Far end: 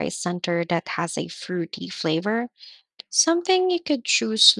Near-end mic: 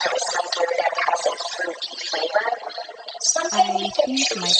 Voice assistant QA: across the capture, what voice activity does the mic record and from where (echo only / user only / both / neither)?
both